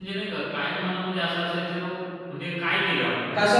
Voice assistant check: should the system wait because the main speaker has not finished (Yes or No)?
No